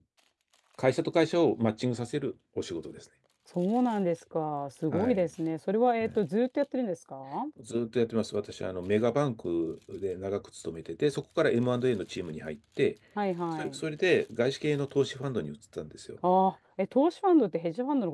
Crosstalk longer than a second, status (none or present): none